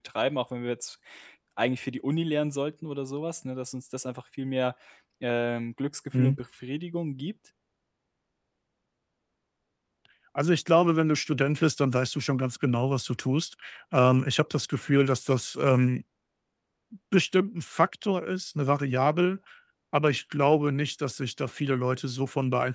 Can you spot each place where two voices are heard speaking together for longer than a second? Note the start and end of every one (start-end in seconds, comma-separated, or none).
none